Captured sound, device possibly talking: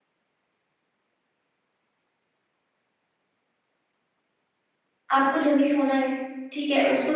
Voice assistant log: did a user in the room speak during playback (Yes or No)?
Yes